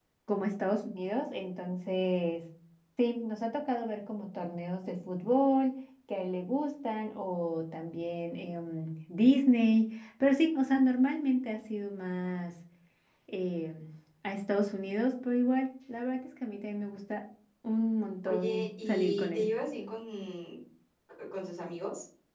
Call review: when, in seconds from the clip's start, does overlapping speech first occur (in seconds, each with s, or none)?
18.2 s